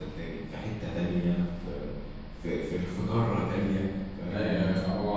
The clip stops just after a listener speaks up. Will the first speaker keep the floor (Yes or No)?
No